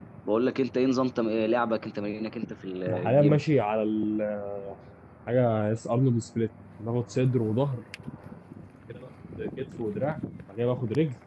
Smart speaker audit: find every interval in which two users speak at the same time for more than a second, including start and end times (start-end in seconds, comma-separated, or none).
none